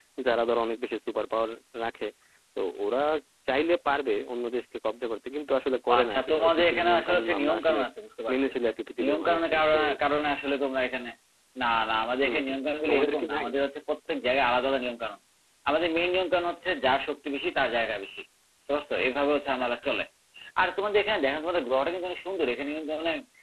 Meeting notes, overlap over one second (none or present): present